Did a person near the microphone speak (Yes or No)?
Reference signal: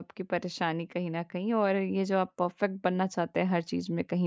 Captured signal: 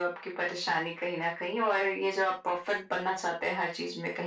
No